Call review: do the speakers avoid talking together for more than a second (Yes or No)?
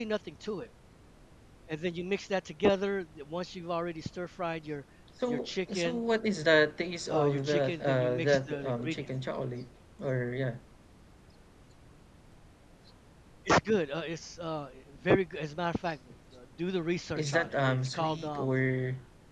No